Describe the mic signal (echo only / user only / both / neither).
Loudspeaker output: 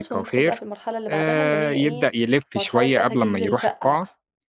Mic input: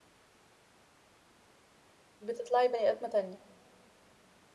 user only